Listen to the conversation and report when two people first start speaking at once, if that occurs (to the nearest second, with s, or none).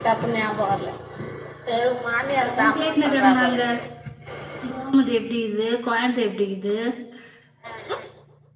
2 s